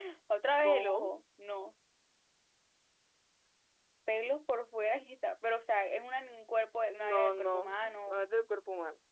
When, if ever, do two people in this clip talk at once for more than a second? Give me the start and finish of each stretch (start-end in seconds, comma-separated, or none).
7.0-8.2